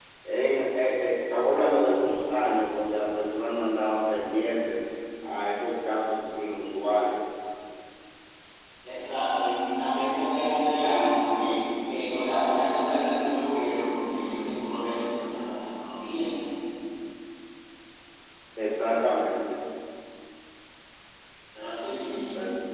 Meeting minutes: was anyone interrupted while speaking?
No

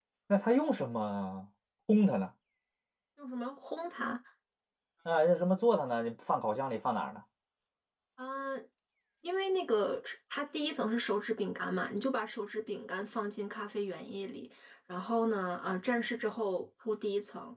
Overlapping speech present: No

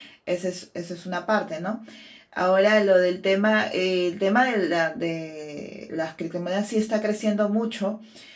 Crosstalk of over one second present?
No

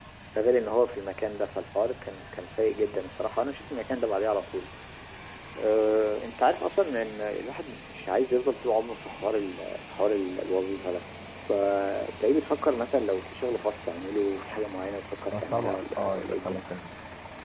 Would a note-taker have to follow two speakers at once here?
Yes, from 15.3 s

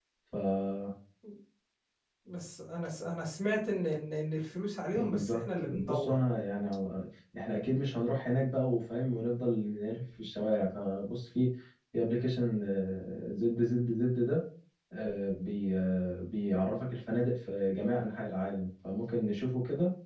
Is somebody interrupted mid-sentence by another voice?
Yes, from 4.9 s

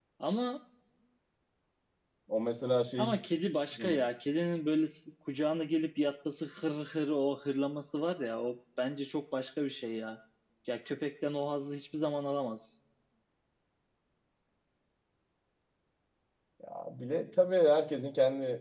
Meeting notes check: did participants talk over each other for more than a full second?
No

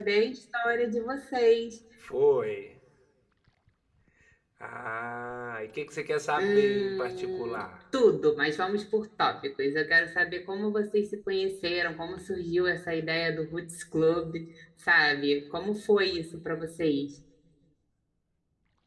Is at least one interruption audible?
Yes, from 6.4 s

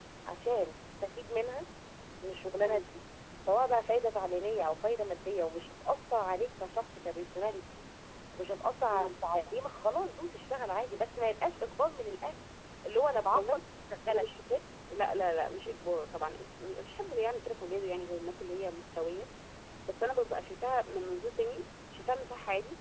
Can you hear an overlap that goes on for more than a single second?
No

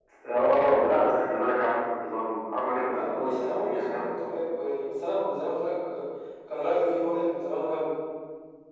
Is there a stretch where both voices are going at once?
Yes, from 2.9 s

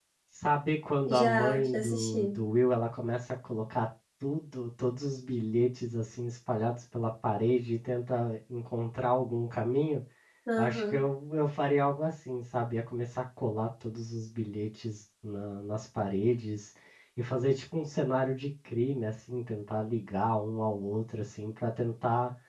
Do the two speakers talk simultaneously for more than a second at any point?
Yes, from 1.1 s

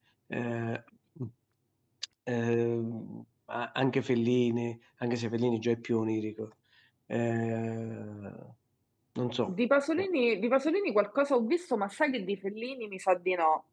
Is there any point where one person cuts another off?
No

